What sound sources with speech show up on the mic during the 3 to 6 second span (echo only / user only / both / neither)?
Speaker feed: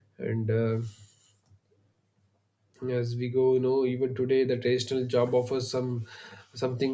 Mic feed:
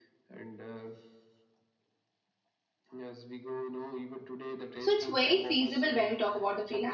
both